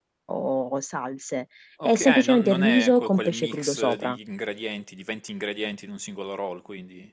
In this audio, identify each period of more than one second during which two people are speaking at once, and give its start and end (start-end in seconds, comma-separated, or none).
1.8-4.2